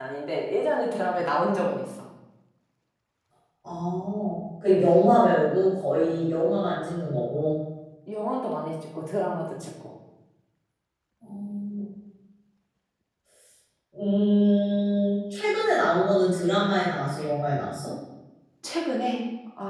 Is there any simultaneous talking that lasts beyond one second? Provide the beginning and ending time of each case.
none

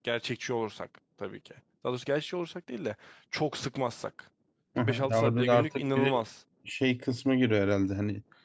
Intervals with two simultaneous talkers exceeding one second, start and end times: 4.8-6.2

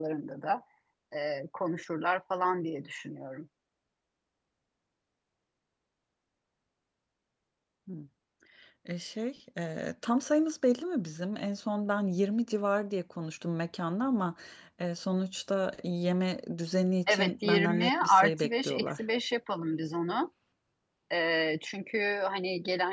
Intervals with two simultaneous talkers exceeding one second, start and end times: 17.1-19.0

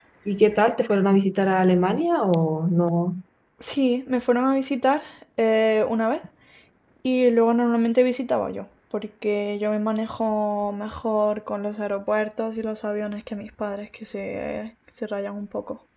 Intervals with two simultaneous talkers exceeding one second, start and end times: none

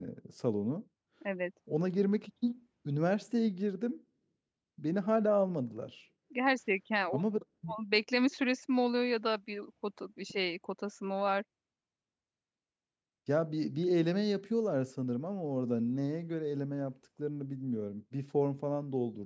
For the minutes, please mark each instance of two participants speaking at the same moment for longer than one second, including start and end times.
none

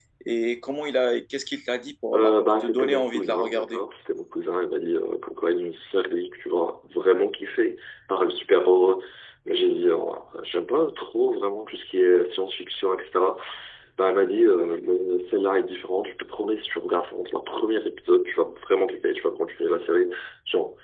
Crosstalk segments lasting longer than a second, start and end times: 2.1-3.8

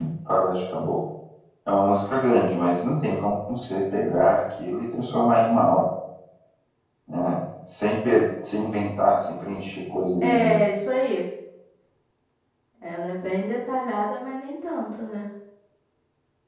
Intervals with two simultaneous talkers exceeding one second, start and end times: none

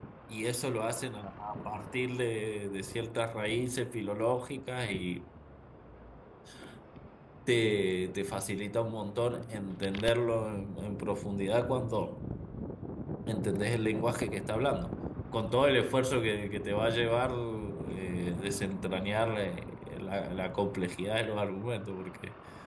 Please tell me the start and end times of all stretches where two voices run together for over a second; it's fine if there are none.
none

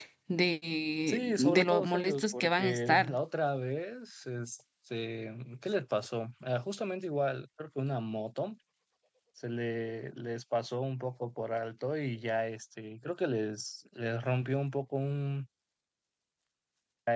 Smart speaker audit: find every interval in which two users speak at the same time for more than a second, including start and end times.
1.1-3.1

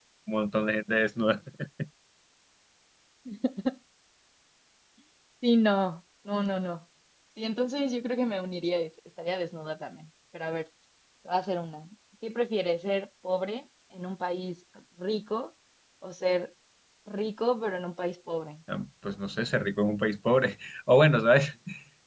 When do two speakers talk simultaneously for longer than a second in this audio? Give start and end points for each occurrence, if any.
none

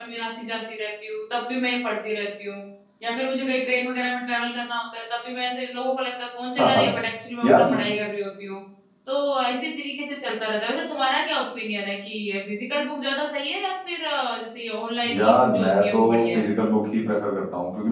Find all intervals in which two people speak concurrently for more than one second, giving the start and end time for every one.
15.1-16.5

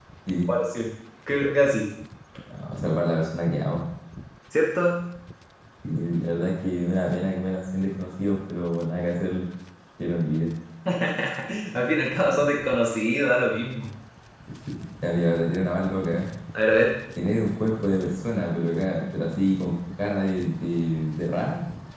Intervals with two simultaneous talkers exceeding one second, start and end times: none

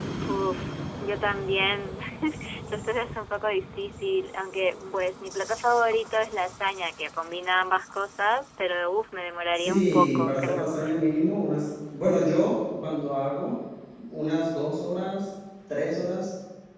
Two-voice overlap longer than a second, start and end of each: 9.6-10.8

